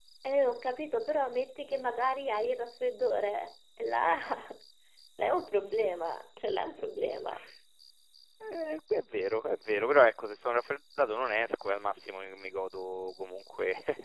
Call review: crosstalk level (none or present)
none